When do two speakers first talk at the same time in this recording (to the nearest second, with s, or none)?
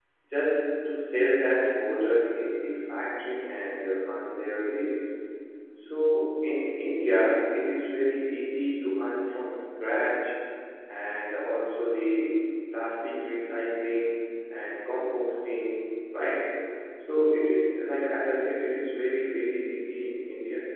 none